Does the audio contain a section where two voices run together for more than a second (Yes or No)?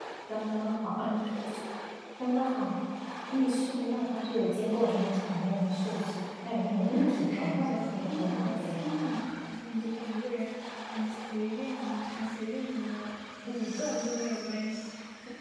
Yes